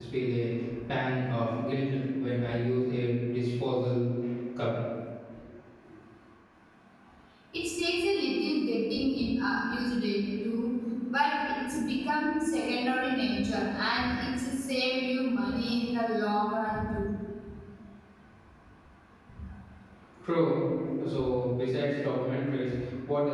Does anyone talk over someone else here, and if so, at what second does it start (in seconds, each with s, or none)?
none